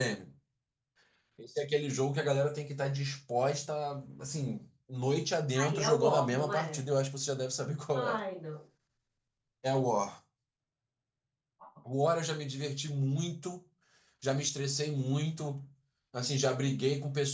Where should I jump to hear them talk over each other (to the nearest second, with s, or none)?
6 s